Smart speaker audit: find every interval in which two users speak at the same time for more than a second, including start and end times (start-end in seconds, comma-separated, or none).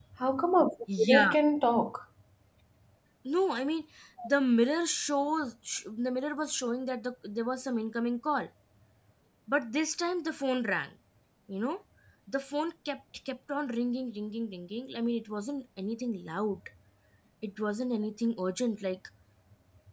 none